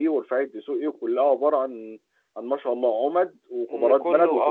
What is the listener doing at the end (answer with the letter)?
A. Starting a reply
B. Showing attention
A